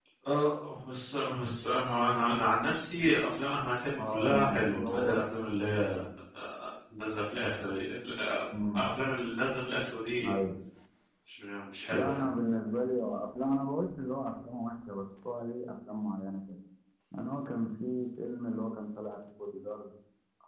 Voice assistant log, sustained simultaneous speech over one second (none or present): present